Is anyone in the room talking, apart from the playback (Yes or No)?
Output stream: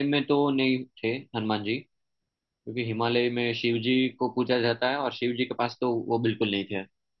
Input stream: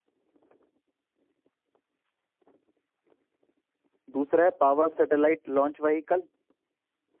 Yes